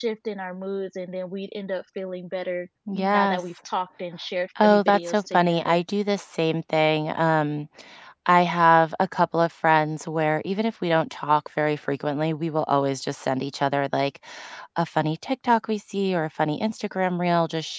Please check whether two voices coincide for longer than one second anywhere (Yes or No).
Yes